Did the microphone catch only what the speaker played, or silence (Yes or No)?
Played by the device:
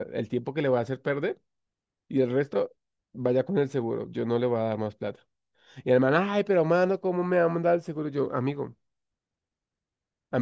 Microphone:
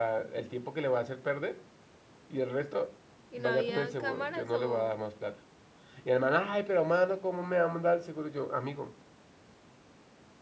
No